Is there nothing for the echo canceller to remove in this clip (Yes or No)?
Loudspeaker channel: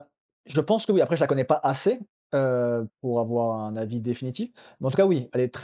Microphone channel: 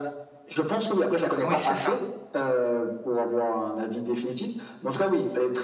No